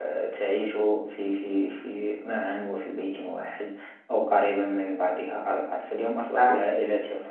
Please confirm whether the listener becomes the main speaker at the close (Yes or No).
No